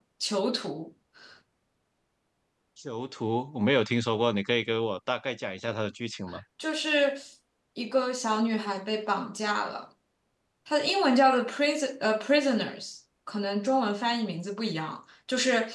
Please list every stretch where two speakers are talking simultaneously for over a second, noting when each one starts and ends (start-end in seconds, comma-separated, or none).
none